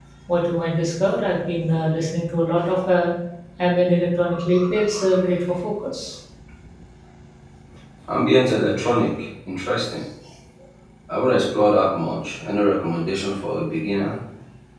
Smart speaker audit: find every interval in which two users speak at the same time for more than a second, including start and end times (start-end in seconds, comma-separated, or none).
none